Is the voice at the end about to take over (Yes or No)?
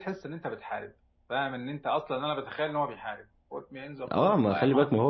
Yes